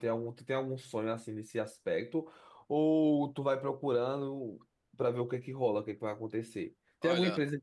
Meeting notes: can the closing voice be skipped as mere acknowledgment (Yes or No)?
Yes